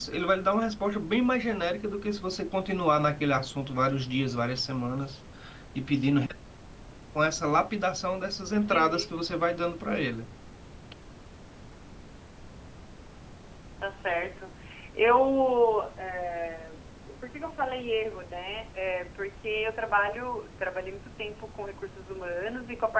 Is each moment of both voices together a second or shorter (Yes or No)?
Yes